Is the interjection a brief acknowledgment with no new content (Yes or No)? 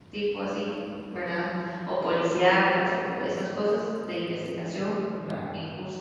Yes